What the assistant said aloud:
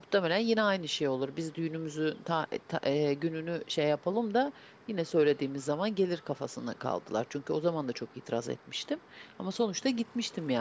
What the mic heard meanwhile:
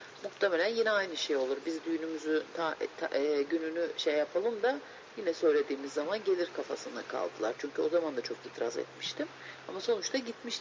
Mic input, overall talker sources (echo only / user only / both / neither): echo only